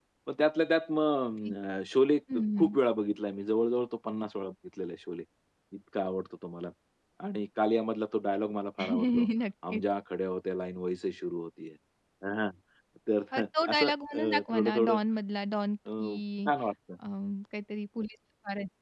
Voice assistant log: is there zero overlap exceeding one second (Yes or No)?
No